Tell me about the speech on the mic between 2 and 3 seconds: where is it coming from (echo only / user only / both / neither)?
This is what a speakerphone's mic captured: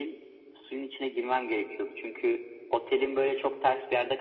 echo only